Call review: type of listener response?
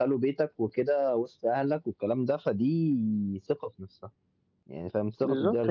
taking over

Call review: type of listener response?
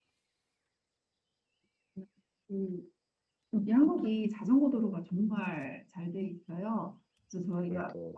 listening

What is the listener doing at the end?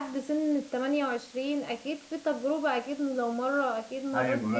taking over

